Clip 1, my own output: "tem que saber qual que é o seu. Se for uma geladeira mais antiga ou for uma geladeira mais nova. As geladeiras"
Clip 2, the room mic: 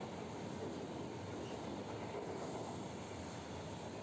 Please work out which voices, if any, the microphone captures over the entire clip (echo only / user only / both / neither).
neither